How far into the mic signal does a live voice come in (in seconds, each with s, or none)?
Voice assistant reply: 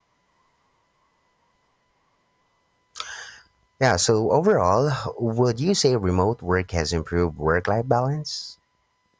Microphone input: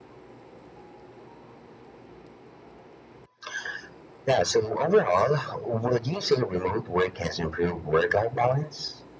none